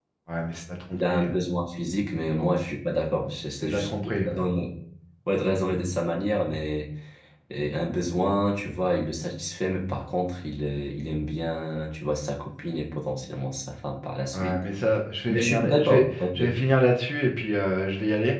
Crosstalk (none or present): present